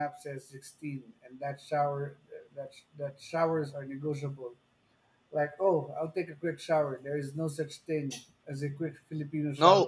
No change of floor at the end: No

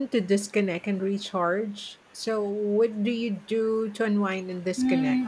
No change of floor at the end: No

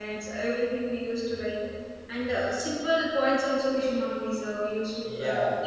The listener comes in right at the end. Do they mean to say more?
Yes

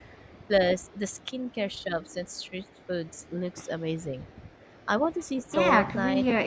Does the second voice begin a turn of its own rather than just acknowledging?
Yes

